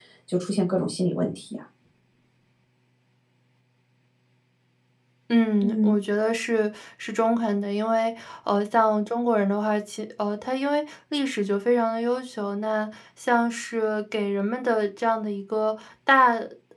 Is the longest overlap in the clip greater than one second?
No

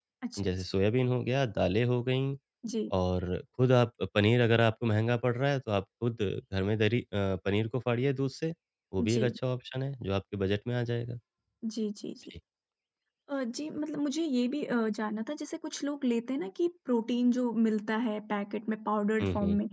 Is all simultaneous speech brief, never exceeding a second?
Yes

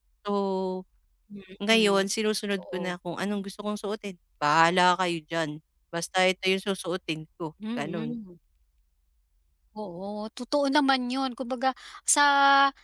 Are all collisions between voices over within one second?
Yes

